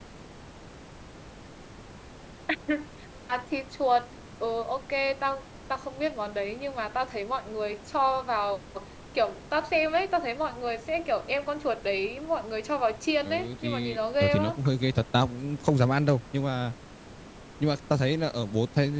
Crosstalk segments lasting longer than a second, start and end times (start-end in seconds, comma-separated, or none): 13.2-14.6